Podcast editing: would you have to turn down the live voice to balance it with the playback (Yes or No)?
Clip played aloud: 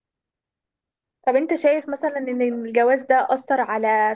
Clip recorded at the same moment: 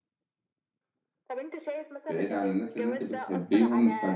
Yes